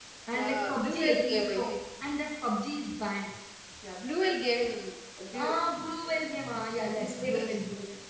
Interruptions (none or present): present